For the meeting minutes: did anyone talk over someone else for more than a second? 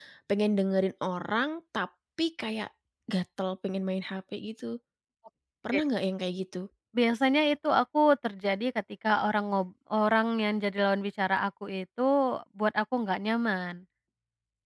No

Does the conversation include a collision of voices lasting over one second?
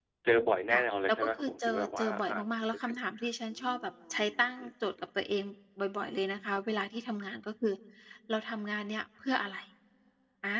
Yes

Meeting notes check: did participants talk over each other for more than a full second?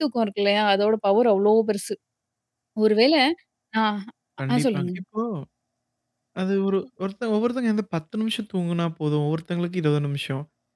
No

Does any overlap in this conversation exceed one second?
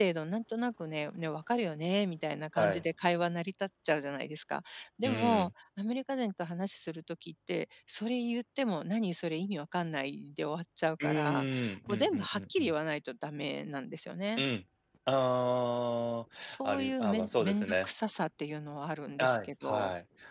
Yes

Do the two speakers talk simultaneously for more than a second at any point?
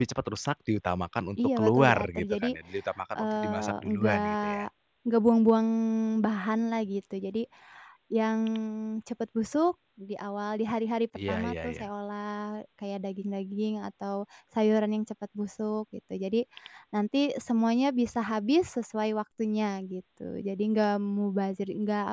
Yes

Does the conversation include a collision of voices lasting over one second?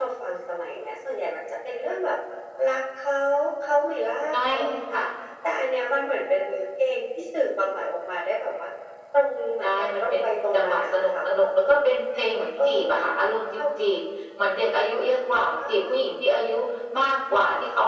Yes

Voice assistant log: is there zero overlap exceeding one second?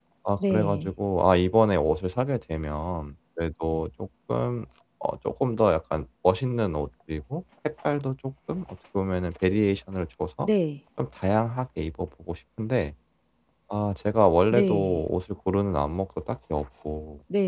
Yes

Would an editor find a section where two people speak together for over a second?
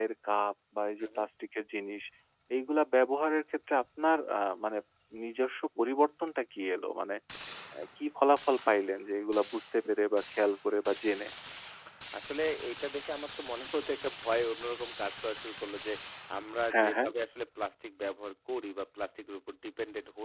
No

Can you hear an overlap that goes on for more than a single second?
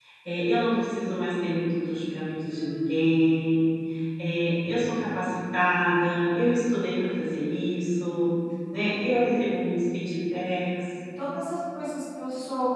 No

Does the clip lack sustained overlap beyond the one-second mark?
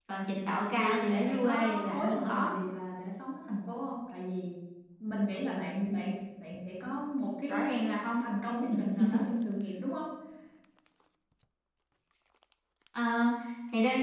No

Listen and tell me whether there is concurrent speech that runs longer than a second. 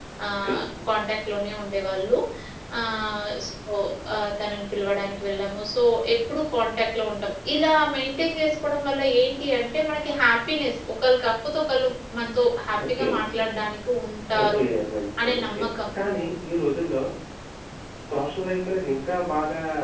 No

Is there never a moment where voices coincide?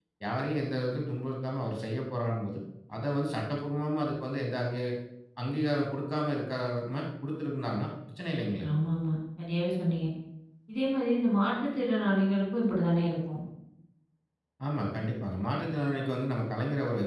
Yes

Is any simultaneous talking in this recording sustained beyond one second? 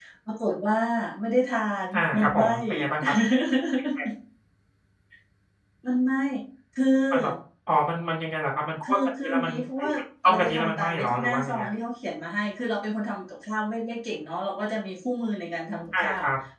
Yes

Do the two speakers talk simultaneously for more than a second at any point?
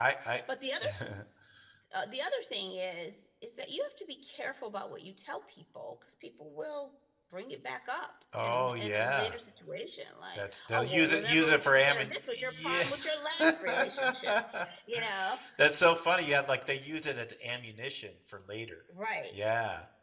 Yes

